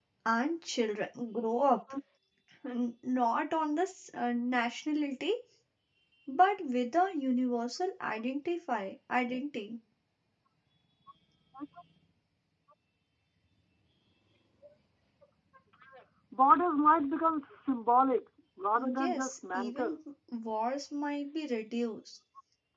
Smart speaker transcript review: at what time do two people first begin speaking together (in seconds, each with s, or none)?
18.8 s